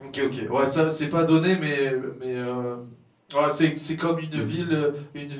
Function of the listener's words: listening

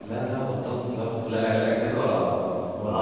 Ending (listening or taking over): listening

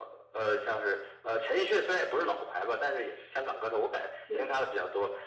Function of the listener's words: listening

